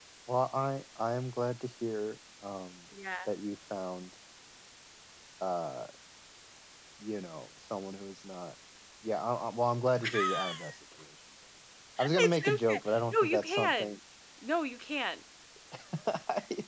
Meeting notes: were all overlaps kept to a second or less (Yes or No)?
No